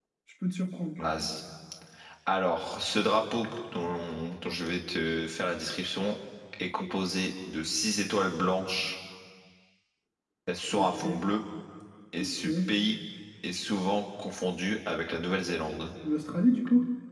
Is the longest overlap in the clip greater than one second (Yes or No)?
No